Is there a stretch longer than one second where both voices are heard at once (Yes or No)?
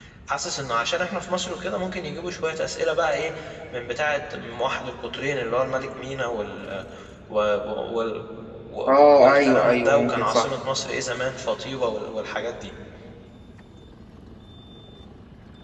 Yes